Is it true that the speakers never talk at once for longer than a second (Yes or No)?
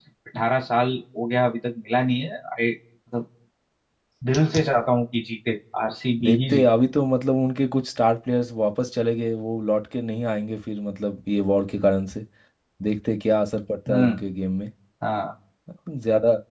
Yes